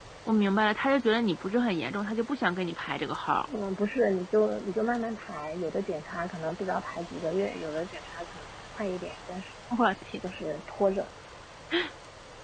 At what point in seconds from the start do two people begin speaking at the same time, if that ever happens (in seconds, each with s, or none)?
none